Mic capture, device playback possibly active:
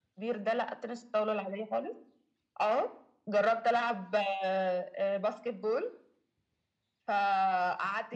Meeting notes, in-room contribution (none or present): none